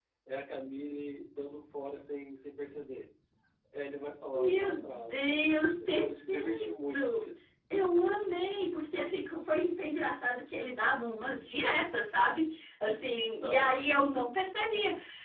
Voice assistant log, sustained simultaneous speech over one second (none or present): present